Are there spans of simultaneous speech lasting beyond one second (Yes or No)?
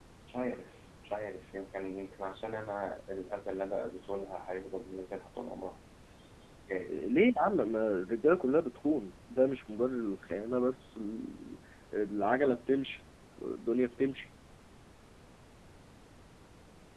No